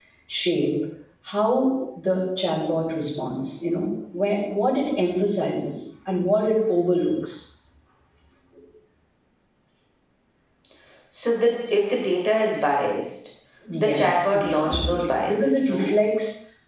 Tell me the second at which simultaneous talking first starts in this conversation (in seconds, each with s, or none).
13.8 s